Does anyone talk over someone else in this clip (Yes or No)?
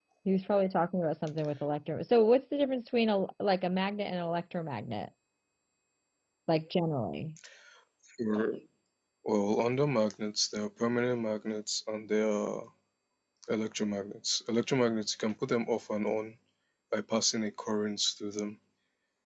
No